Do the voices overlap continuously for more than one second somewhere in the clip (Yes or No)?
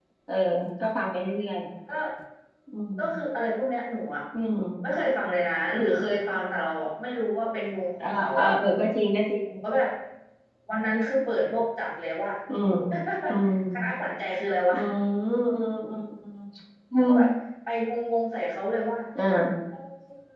No